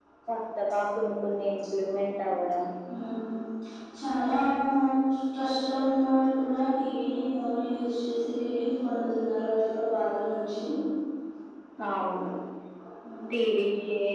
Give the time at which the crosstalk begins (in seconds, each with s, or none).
none